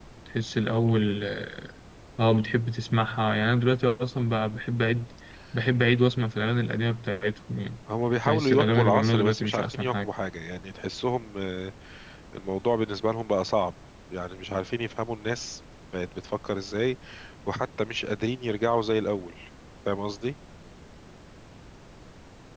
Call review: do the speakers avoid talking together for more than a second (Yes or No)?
No